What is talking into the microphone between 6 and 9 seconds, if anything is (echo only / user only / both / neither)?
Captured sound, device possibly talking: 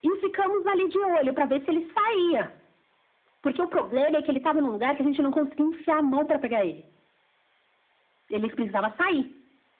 echo only